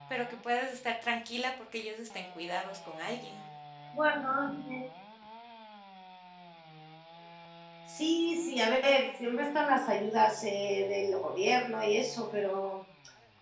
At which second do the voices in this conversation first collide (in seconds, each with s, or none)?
none